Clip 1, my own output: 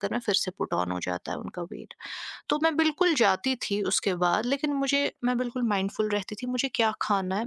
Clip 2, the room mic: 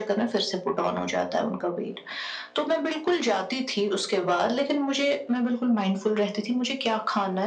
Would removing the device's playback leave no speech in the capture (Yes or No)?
Yes